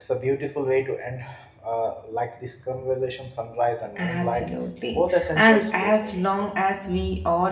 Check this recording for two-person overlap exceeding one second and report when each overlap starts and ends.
4.9-6.5

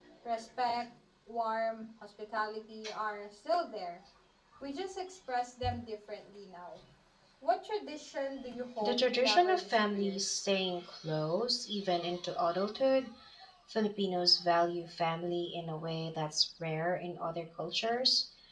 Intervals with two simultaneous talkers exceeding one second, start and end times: 8.8-10.2

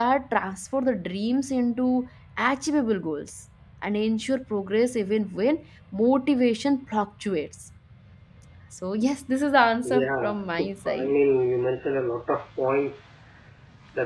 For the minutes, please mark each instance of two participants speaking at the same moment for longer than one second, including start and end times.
9.8-11.1

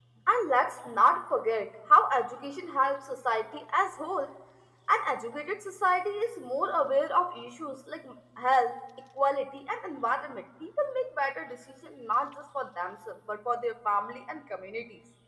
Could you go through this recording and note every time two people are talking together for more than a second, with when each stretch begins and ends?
none

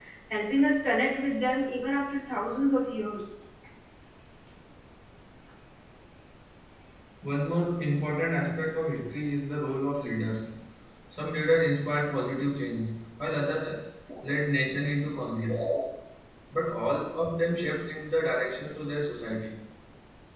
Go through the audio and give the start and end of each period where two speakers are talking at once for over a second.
none

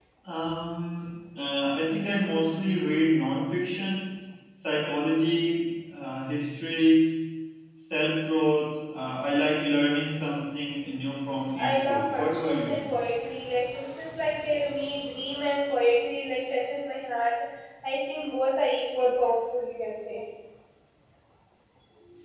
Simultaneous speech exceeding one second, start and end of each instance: 11.6-12.8

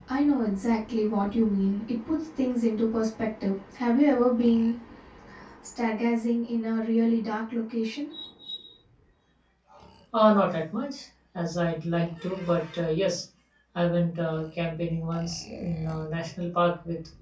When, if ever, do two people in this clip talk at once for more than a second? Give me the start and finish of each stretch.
none

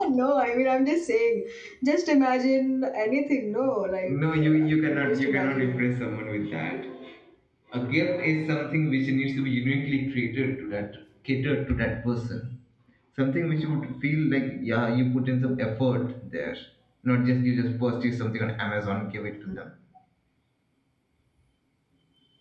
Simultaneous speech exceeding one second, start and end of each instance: 4.1-5.9

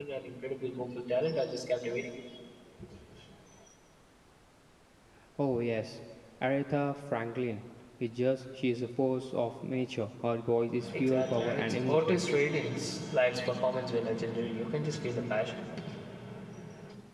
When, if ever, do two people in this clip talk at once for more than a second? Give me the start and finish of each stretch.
11.0-12.2

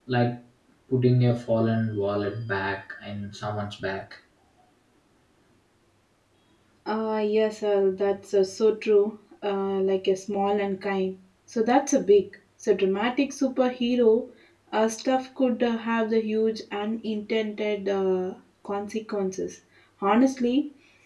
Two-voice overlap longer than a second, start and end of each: none

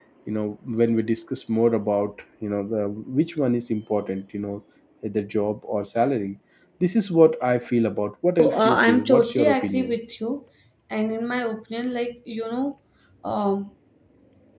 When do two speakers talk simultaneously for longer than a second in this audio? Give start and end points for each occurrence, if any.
8.4-9.9

